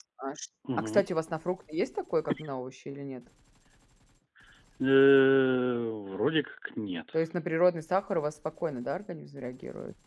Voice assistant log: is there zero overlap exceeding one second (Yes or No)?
Yes